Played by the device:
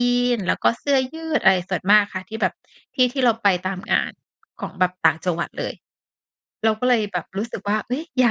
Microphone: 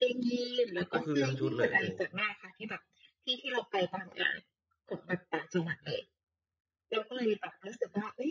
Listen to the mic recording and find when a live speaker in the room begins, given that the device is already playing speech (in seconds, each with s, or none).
0.9 s